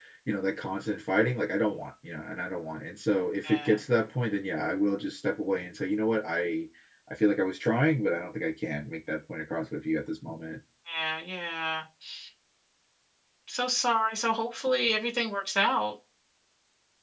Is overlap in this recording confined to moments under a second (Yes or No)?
Yes